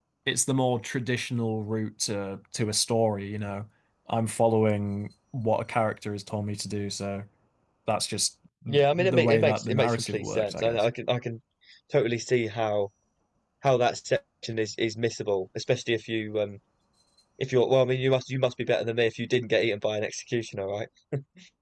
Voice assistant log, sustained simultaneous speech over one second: present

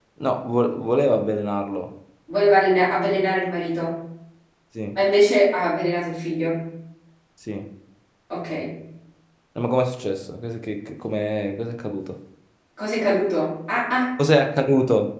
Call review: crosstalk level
none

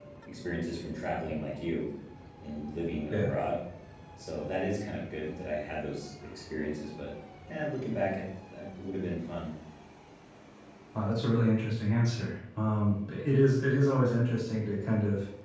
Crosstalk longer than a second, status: none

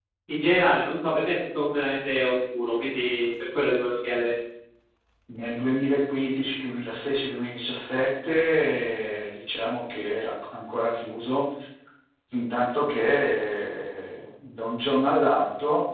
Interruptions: none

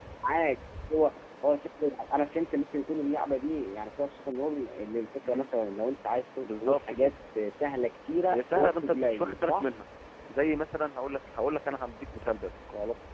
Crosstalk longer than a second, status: present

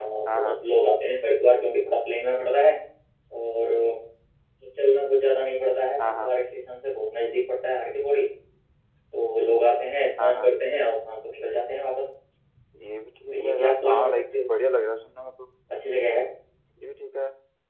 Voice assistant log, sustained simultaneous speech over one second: present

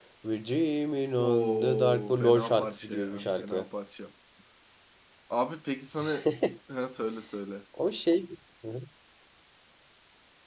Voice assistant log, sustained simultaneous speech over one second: present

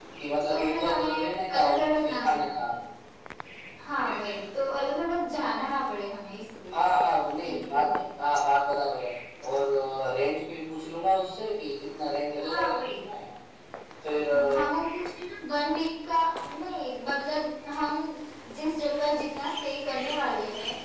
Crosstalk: present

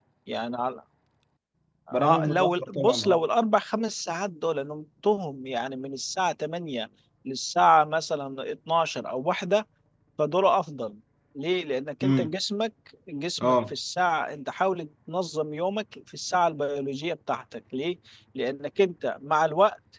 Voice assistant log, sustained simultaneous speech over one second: present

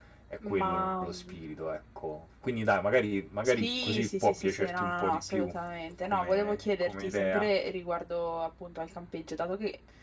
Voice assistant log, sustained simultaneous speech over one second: present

